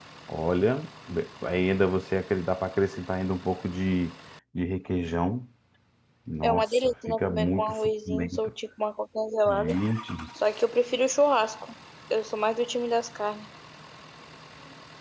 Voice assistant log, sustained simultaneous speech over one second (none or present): present